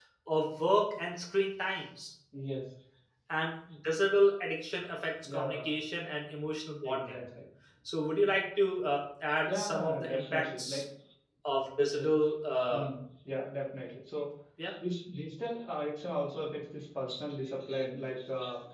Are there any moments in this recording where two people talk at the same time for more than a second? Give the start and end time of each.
9.4-10.8

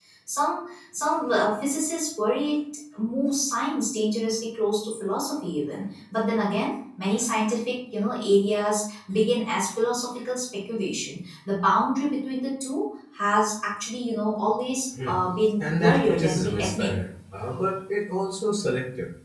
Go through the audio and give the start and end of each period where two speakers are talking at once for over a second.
15.6-16.9

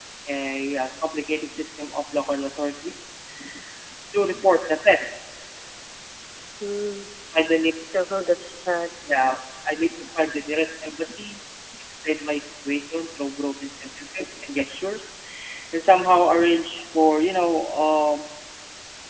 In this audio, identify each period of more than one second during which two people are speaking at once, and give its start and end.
none

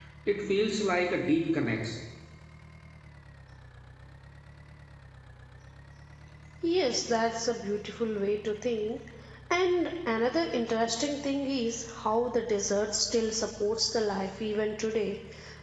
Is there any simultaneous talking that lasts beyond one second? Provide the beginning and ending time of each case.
none

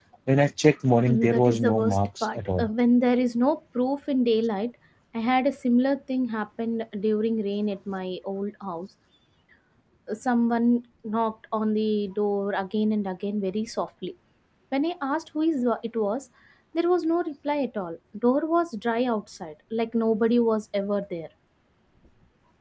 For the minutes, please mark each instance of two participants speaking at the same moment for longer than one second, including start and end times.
1.1-2.7

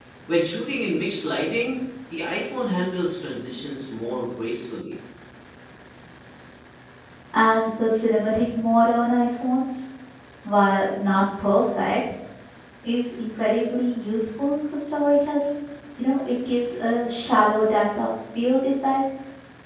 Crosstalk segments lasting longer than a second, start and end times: none

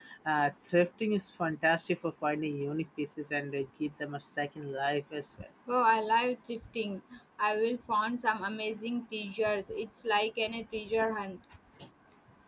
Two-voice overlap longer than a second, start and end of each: none

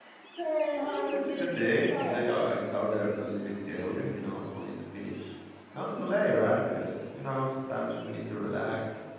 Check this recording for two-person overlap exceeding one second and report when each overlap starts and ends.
0.7-2.3

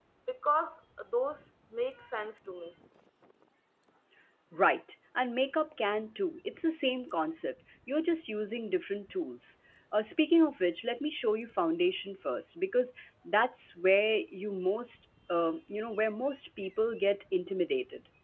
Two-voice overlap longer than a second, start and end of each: none

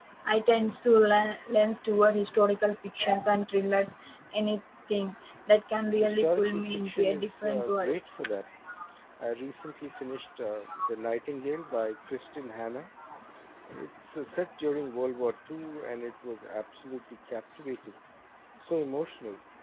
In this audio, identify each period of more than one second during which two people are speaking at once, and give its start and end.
6.0-8.0

